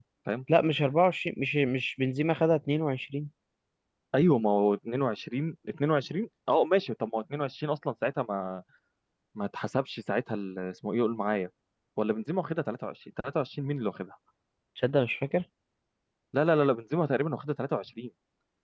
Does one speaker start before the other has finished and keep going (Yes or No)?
No